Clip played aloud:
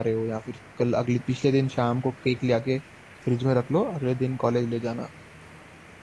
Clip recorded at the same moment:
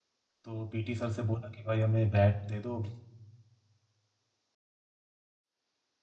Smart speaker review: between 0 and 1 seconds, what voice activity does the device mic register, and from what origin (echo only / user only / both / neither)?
user only